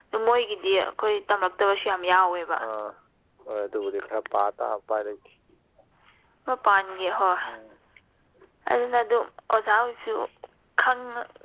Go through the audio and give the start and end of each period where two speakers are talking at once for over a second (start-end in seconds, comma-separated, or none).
none